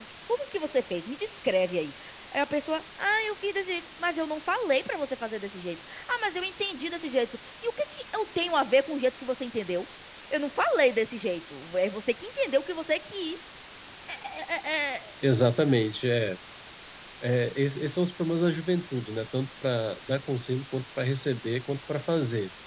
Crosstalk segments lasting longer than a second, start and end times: none

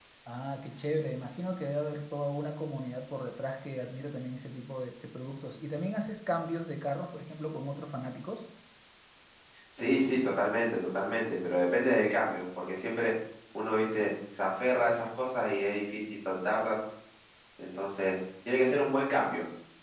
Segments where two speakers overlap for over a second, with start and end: none

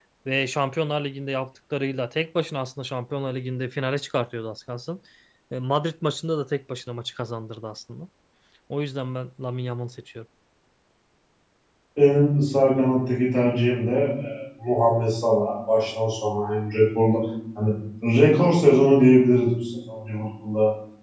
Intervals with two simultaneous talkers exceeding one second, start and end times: none

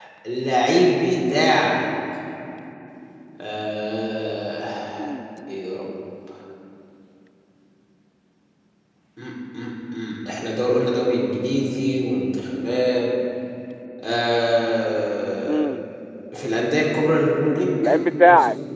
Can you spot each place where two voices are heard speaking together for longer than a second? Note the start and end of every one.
none

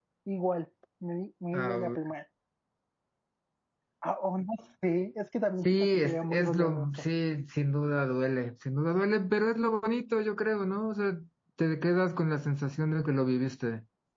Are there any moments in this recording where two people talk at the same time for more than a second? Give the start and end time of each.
5.7-6.9

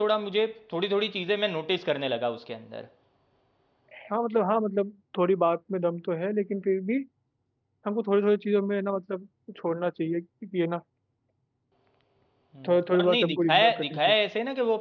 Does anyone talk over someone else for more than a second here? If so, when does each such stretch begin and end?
12.7-14.1

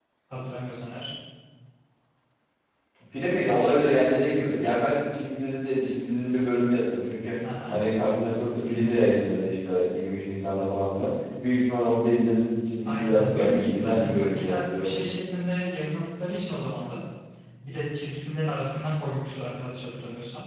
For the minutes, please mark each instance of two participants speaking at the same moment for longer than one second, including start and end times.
12.8-14.9

